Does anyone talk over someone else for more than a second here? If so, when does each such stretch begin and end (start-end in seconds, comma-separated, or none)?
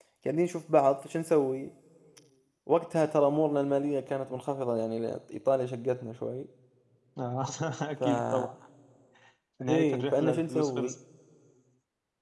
9.7-10.9